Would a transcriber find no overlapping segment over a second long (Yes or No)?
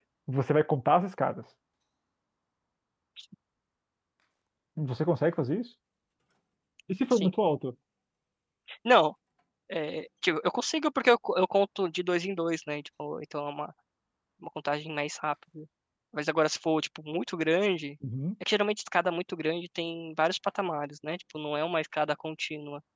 Yes